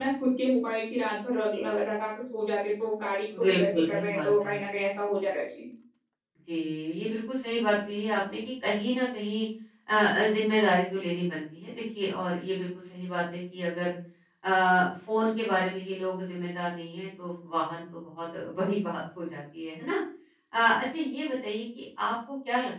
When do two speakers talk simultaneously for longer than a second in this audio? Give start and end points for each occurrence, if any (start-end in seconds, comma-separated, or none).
3.4-4.6